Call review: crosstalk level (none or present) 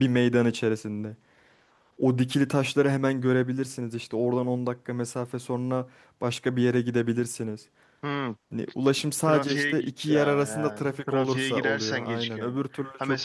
present